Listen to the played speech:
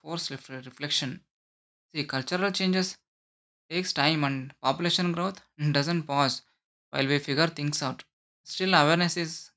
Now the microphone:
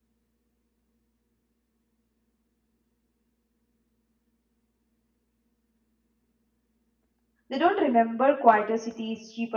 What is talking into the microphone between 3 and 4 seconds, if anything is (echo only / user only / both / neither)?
neither